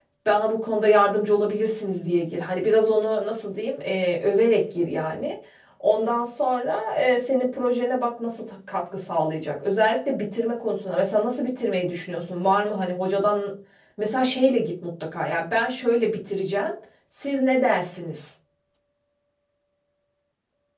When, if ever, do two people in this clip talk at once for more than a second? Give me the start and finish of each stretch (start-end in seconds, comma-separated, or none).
none